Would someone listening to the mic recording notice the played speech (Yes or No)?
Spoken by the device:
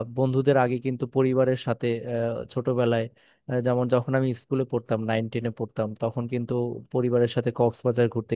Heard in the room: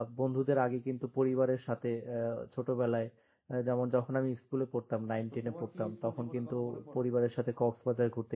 Yes